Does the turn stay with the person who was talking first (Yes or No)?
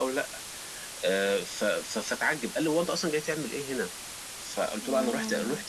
Yes